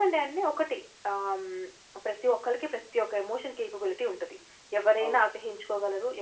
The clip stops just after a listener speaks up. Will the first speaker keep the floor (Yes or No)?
Yes